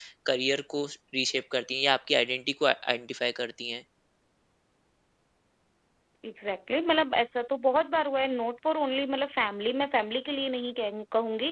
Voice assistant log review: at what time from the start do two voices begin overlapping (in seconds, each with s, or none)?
none